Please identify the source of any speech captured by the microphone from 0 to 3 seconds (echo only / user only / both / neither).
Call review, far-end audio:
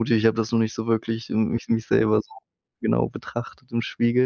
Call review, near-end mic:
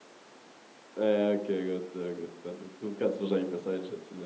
user only